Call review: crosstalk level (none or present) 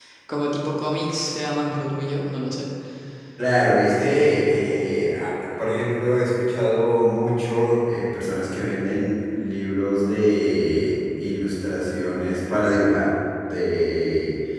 none